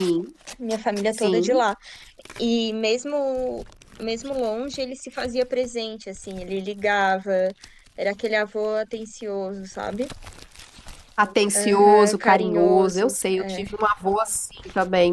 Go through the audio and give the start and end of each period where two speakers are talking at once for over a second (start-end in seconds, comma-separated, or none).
11.6-13.6